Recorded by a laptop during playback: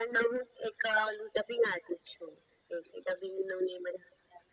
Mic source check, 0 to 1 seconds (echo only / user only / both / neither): echo only